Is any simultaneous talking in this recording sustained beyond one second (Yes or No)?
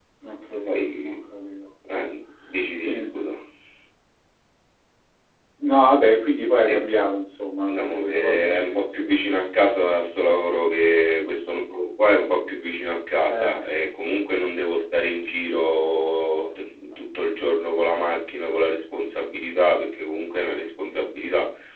Yes